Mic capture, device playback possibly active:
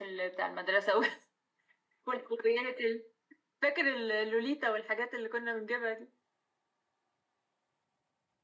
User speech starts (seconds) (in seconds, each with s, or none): none